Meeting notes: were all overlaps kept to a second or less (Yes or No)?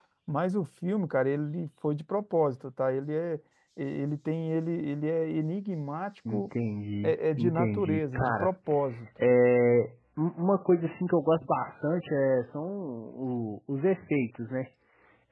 No